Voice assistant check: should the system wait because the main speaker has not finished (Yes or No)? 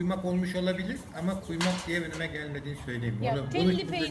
No